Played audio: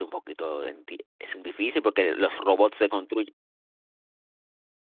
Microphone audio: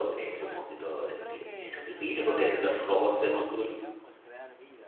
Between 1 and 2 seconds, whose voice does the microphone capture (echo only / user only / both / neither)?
both